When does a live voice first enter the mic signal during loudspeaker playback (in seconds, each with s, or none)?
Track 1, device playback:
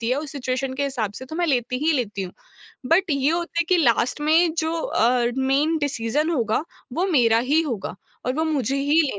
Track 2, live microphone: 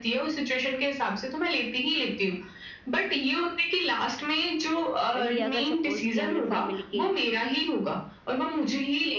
5.2 s